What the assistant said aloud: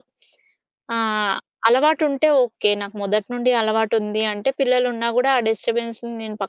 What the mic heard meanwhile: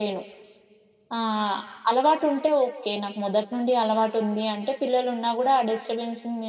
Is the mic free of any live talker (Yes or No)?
Yes